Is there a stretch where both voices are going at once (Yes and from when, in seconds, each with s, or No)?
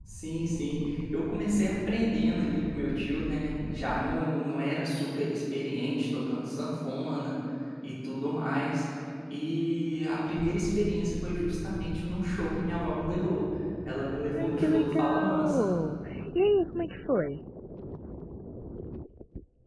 Yes, from 14.4 s